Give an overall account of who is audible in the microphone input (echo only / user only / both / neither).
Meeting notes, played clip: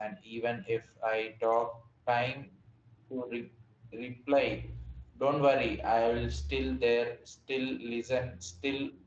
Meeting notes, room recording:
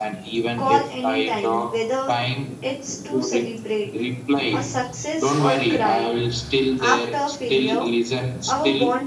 both